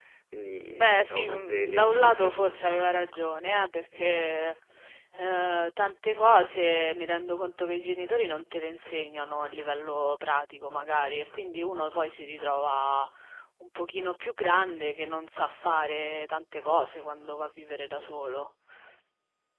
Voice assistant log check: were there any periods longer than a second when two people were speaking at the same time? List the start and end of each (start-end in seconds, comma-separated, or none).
0.7-3.2